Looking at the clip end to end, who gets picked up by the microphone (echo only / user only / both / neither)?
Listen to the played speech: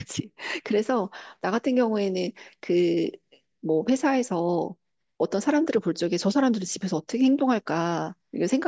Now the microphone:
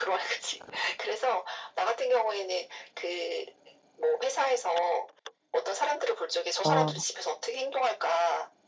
both